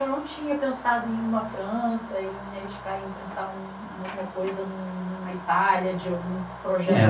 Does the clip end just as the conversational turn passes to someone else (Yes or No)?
Yes